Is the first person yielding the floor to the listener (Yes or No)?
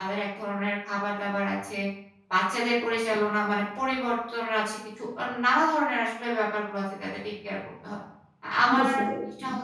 No